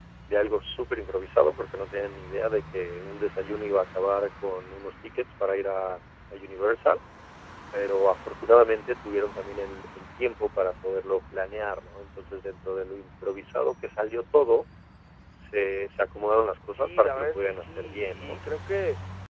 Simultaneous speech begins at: 17 s

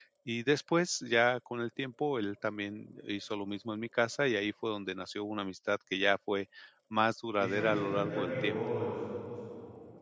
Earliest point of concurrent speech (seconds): 7 s

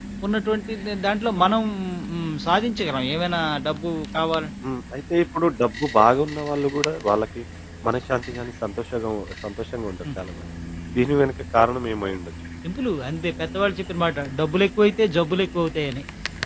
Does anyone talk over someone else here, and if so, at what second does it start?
none

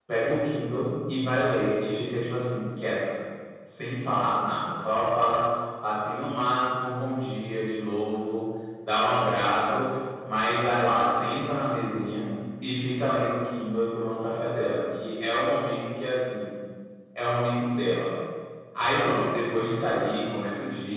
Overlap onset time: none

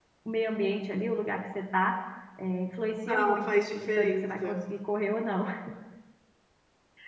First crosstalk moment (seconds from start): 3 s

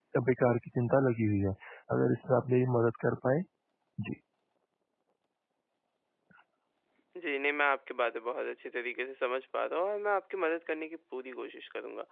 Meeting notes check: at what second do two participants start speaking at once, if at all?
none

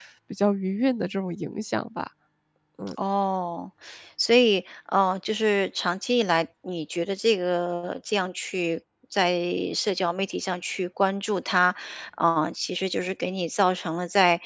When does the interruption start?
none

